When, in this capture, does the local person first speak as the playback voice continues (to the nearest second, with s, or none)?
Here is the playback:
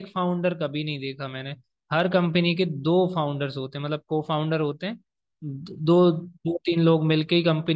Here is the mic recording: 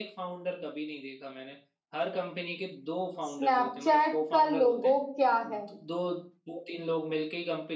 3 s